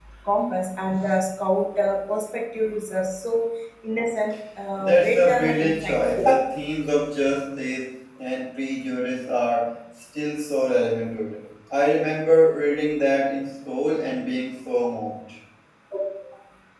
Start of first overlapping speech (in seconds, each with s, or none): 4.8 s